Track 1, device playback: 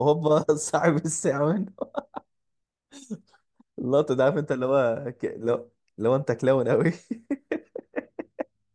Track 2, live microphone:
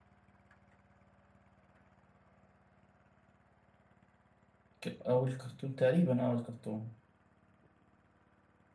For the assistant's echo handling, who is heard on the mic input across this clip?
user only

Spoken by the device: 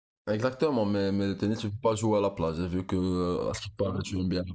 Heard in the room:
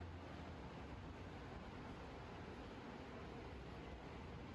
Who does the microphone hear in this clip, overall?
neither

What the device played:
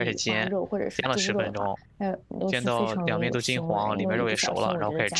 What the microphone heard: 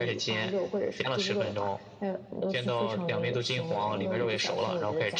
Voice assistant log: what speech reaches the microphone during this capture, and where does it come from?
echo only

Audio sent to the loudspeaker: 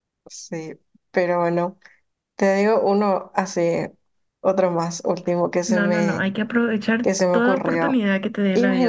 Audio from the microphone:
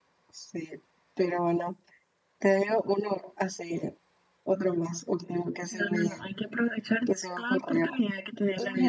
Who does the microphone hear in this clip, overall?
echo only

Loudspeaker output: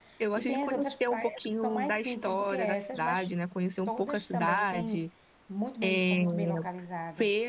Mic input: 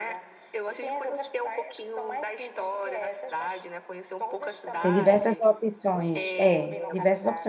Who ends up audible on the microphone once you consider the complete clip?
both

